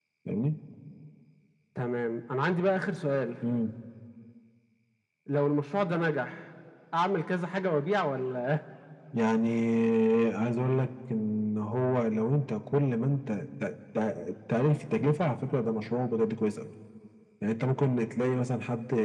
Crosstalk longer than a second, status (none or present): none